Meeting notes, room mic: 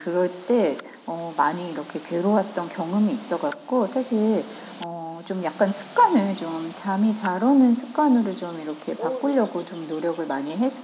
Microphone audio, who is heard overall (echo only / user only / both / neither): both